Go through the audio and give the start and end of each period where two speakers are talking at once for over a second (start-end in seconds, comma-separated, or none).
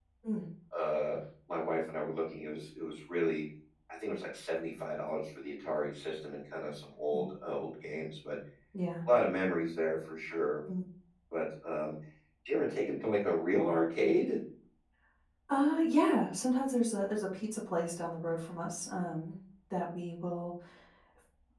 none